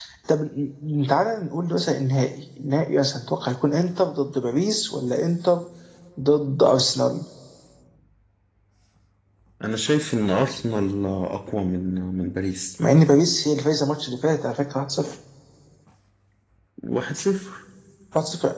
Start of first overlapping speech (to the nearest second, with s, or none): none